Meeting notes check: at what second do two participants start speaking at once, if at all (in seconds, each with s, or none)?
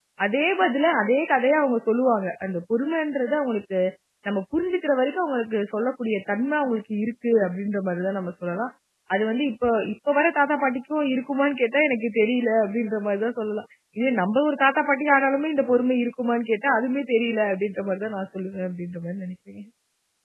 none